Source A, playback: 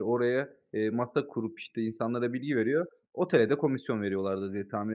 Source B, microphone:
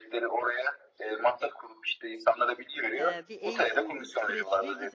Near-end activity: present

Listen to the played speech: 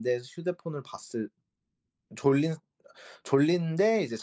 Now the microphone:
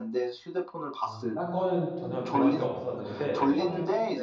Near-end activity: present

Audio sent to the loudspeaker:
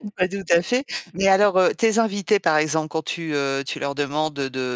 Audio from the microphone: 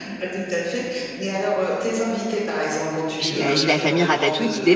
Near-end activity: present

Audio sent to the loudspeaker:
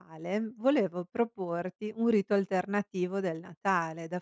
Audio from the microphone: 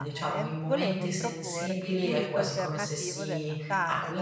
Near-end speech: present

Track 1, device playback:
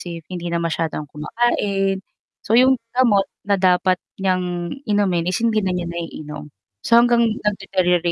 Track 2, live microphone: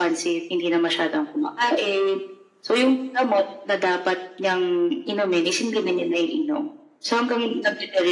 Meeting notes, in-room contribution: none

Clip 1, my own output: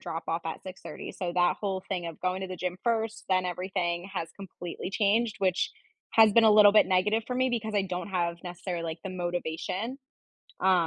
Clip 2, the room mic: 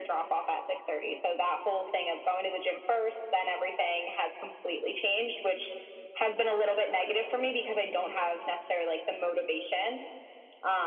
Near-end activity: none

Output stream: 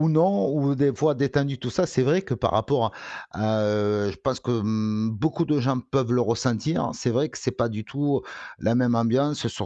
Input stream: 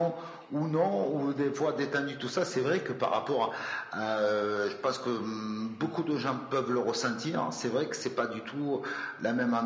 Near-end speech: none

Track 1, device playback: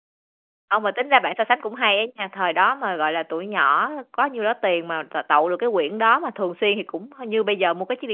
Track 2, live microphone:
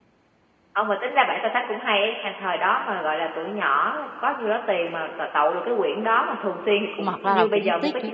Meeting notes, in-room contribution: present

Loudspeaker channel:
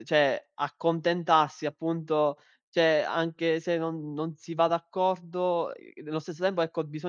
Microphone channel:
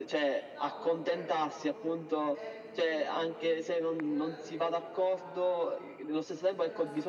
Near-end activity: present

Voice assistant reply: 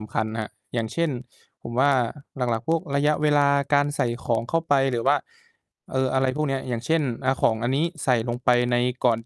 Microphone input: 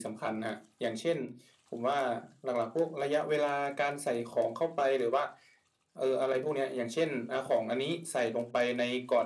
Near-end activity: none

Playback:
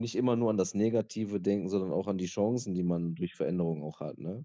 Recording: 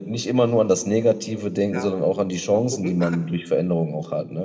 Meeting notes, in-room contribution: present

